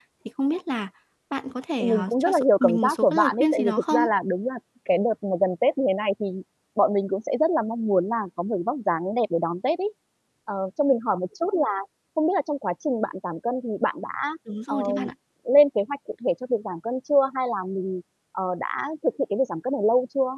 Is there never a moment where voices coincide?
No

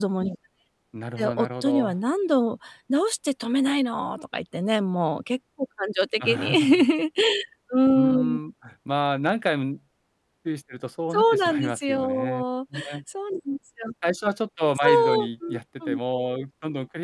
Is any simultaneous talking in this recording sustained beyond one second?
Yes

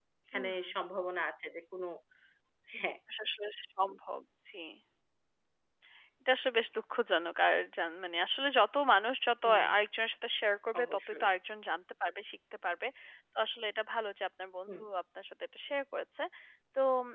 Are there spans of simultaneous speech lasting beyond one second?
No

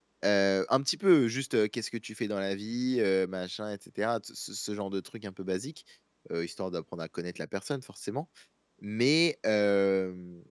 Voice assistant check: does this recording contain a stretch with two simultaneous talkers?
No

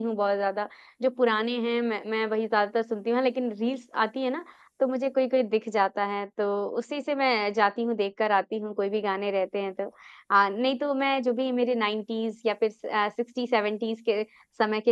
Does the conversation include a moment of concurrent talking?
No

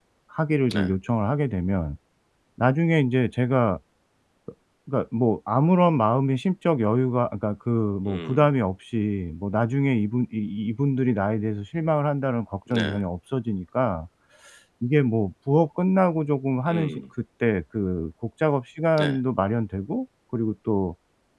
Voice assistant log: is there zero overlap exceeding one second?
Yes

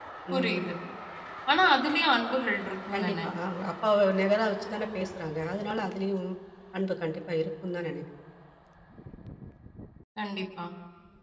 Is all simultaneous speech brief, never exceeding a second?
Yes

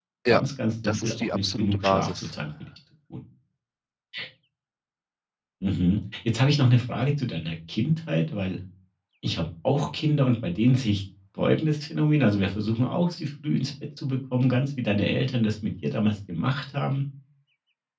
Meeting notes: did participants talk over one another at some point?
Yes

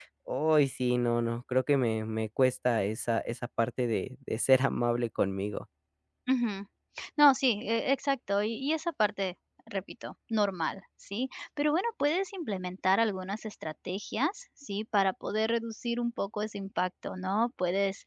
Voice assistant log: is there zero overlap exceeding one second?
Yes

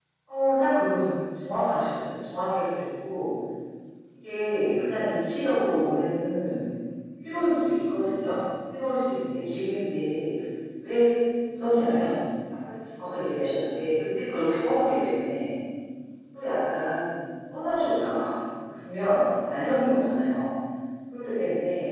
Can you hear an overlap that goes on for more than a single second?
No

